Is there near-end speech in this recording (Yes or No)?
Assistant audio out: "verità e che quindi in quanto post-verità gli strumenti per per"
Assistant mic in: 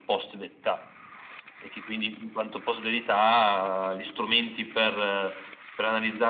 No